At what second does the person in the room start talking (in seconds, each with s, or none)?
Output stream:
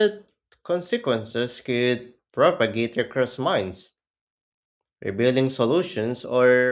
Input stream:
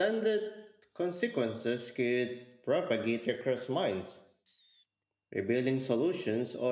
none